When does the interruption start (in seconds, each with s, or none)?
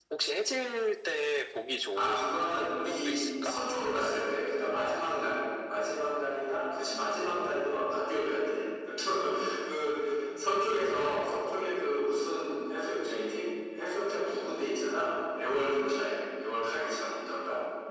1.9 s